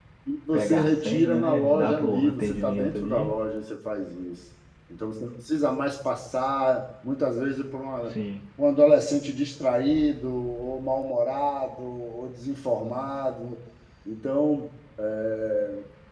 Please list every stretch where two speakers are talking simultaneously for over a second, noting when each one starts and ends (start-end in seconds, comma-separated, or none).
0.5-3.3